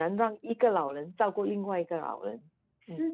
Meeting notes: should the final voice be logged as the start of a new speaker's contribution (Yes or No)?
Yes